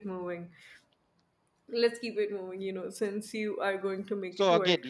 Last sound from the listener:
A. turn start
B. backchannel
A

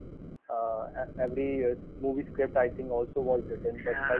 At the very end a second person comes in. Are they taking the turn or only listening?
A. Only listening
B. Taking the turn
B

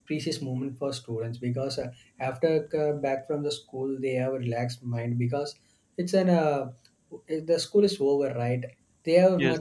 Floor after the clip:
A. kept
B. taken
A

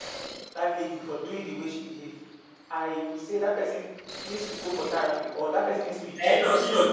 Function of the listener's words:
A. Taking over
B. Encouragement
A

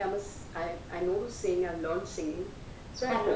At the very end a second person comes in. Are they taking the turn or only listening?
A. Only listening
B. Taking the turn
A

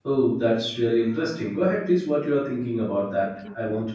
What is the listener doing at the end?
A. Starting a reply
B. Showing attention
A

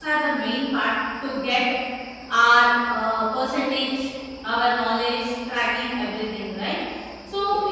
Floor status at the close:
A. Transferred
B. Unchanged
B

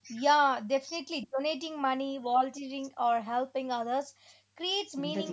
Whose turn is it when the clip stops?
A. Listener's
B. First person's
B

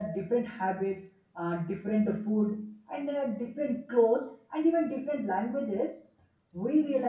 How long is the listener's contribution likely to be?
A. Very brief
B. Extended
A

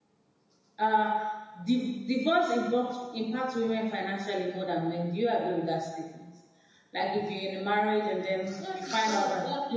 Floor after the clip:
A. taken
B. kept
A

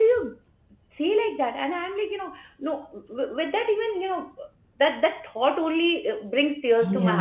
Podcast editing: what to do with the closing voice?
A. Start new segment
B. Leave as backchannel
B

